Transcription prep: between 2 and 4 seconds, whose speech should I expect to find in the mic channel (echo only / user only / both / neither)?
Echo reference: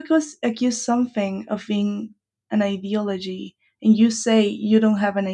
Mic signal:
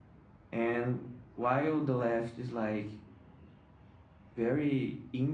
user only